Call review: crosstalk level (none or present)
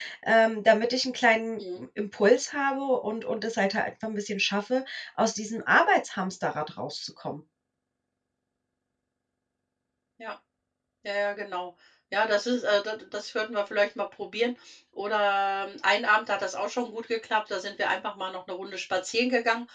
none